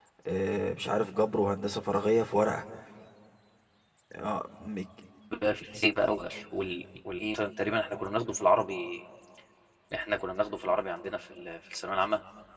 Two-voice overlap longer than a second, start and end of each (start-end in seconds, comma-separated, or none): none